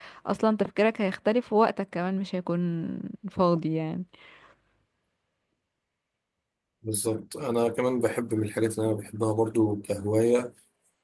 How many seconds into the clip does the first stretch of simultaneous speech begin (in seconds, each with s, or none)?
none